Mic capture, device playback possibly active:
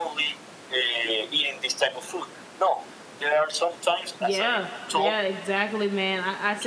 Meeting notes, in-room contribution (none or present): present